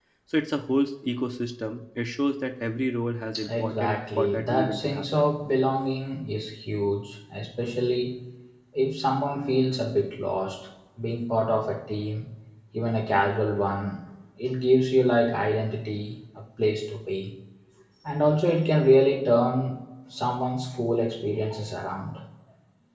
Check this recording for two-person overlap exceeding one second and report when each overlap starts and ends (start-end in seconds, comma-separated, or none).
3.5-5.3